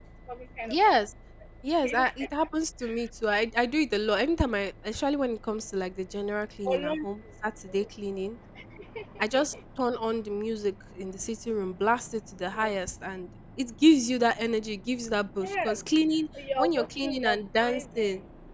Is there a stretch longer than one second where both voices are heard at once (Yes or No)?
Yes